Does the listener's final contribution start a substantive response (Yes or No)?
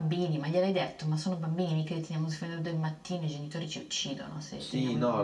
Yes